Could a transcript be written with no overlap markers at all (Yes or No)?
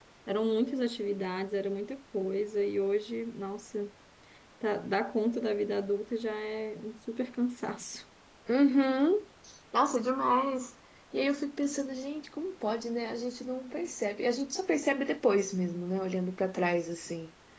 Yes